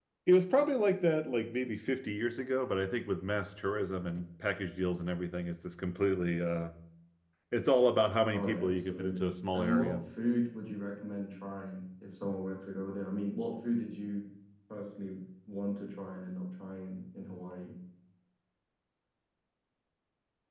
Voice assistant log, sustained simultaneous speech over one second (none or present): present